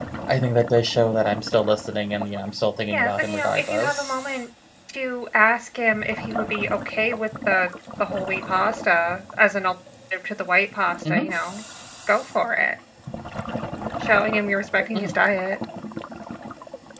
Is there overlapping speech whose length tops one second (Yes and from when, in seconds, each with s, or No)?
Yes, from 2.9 s